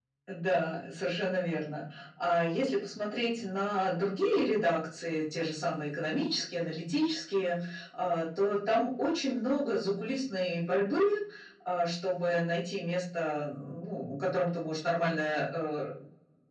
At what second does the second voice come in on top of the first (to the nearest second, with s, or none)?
none